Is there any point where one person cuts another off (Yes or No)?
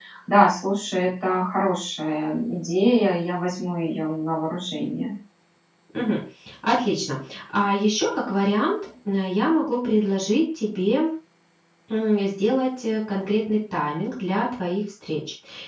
No